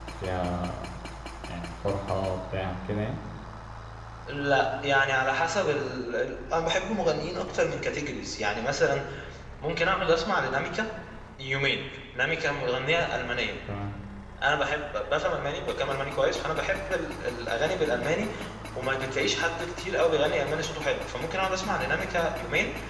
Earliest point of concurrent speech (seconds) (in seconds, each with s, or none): none